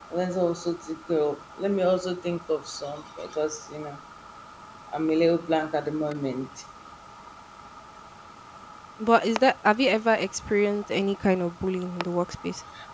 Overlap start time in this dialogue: none

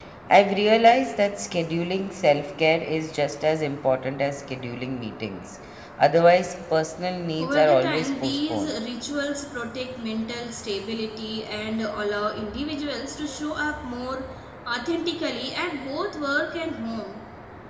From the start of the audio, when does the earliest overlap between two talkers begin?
7 s

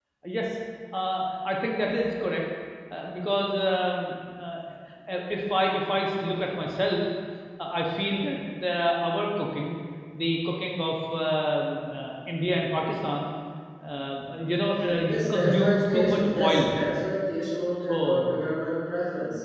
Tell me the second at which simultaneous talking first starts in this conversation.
15 s

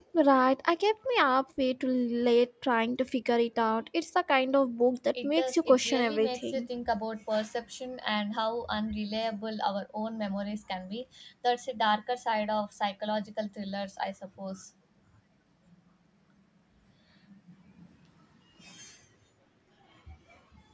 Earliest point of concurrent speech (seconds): 5 s

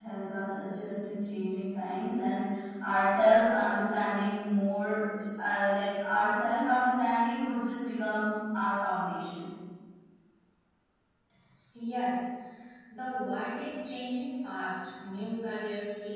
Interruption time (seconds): none

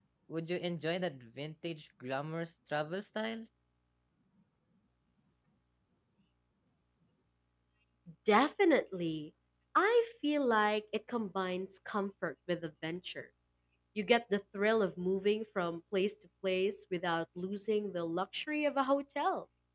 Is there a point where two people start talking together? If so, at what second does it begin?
none

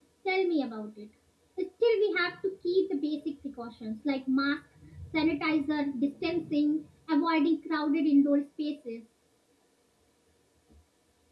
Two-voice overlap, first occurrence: none

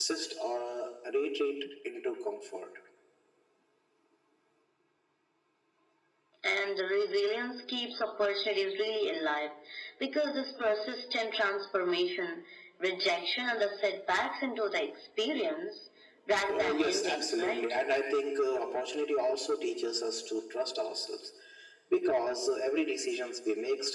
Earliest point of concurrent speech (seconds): 16 s

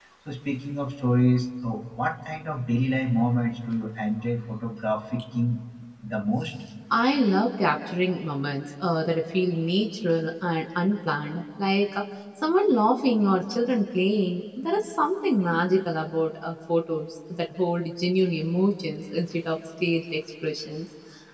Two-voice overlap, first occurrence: none

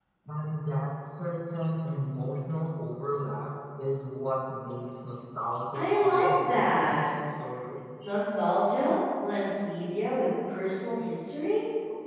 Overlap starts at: 6 s

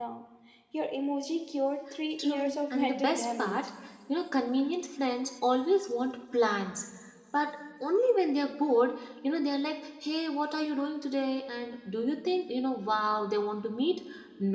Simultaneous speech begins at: 2 s

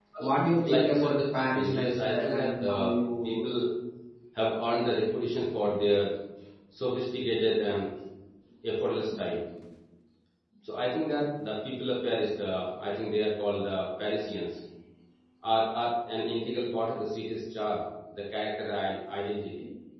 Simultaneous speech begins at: 1 s

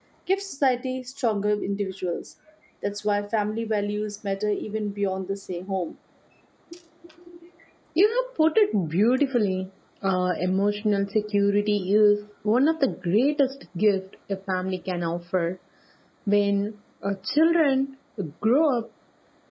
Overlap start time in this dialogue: none

